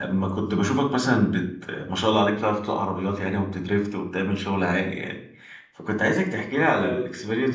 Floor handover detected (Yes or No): No